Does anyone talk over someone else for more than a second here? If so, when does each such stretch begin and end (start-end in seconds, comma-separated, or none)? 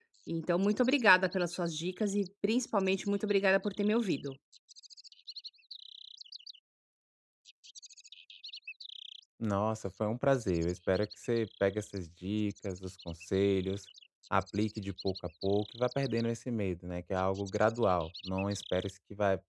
none